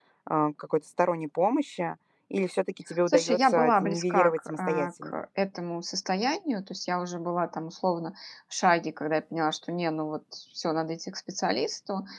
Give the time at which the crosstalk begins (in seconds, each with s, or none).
3.1 s